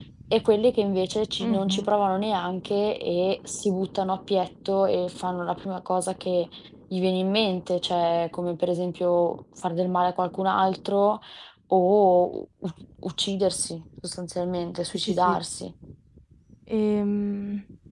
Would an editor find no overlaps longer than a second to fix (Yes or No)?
Yes